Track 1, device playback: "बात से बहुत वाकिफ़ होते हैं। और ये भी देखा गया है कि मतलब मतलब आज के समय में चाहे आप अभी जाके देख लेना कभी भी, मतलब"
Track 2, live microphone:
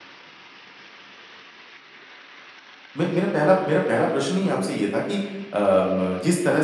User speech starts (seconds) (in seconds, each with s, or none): 3.0 s